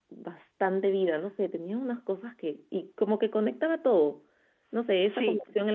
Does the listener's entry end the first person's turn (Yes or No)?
No